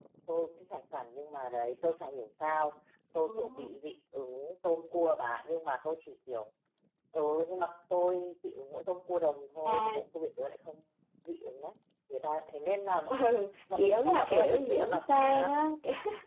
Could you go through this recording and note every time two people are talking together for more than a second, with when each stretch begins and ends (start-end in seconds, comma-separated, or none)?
13.8-15.5